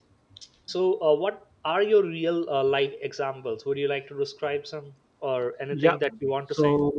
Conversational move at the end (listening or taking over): taking over